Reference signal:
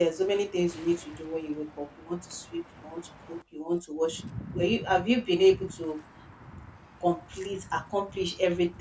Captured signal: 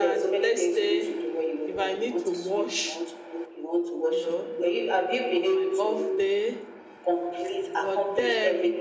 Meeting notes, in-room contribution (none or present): present